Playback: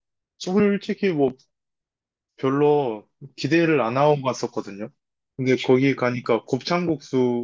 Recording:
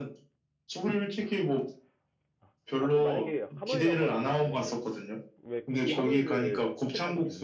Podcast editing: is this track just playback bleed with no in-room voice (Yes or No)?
No